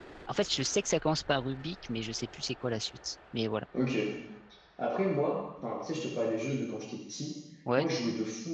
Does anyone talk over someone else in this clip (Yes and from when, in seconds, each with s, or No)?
No